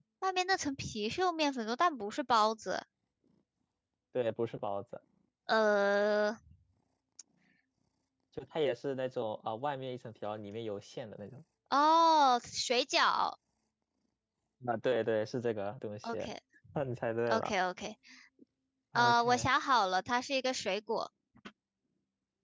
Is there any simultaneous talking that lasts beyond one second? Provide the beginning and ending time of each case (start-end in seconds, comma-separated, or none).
none